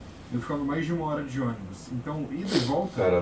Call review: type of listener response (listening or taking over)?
listening